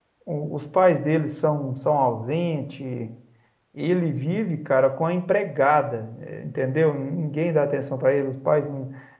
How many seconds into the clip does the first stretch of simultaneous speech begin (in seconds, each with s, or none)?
none